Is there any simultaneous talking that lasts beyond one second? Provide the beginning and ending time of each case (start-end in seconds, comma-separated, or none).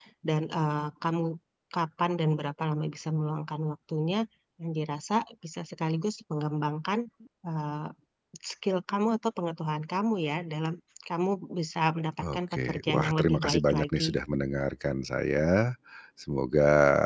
12.2-14.2